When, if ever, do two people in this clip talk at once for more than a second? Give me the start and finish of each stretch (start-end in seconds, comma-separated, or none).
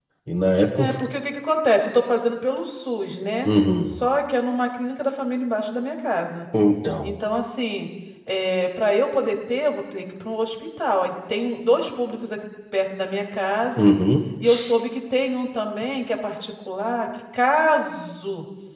none